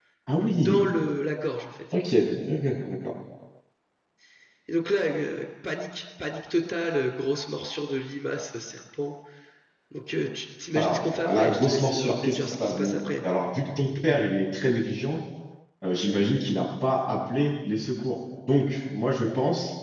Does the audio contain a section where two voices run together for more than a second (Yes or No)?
Yes